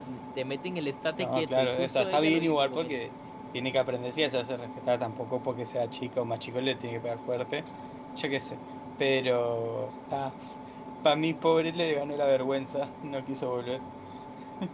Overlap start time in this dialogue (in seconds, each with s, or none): 1.2 s